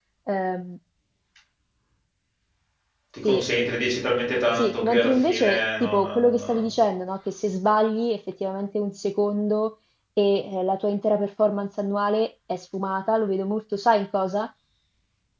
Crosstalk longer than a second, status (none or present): present